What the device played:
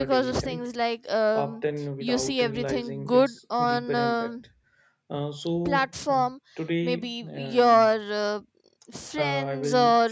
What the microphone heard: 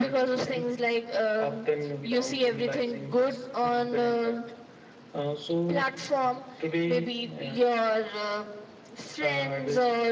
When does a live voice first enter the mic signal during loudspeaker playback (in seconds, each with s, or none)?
none